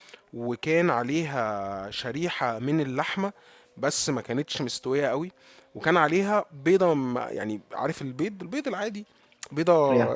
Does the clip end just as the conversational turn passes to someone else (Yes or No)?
No